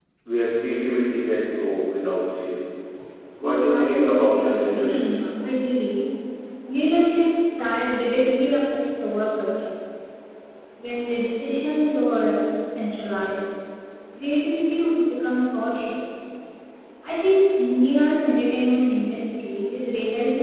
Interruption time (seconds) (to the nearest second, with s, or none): 3 s